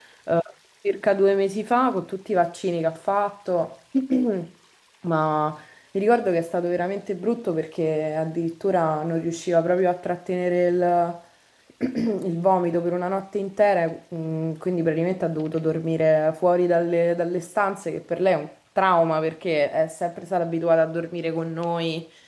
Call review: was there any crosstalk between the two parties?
No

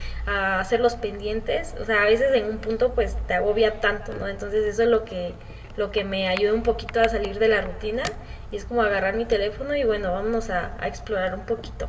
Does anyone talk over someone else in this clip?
No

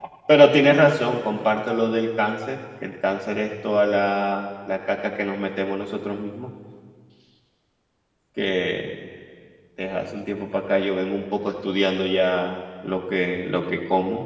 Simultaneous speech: No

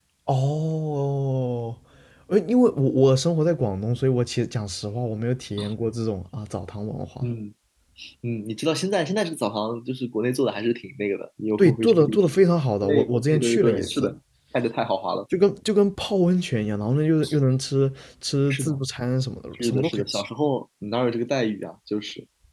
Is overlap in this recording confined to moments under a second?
No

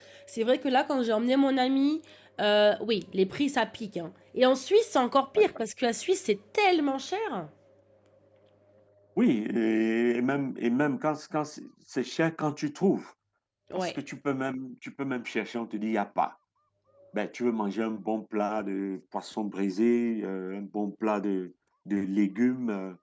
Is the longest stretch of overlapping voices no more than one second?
Yes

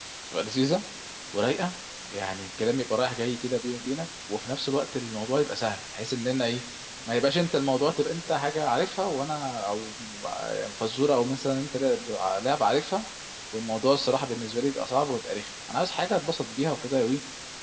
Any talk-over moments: No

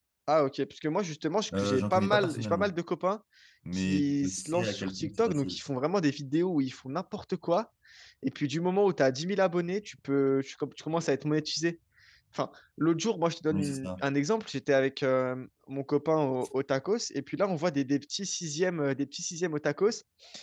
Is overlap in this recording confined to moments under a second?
No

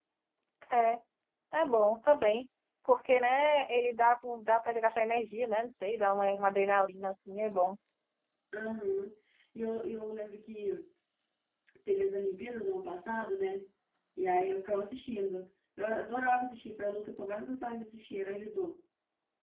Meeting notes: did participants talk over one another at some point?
No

